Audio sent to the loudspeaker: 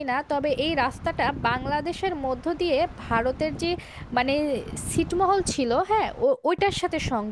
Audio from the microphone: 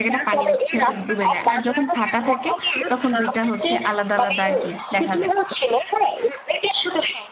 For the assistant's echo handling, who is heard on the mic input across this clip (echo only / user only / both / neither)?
both